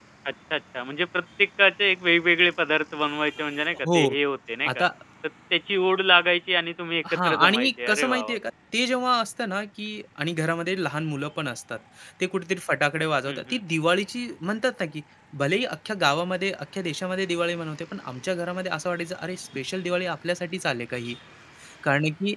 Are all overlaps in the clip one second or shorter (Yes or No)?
No